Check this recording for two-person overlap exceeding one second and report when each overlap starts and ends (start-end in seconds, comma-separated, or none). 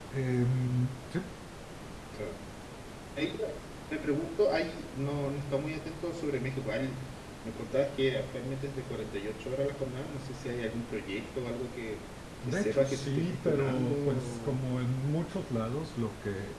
12.5-14.6